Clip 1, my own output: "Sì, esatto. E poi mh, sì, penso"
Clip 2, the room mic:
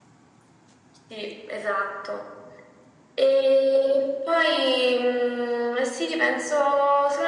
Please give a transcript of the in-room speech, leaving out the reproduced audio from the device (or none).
none